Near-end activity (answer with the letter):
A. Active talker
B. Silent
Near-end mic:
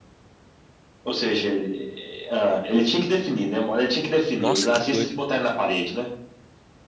A